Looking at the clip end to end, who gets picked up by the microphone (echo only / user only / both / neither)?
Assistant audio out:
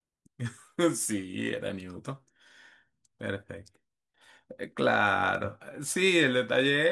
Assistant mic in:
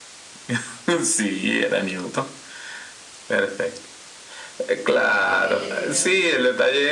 both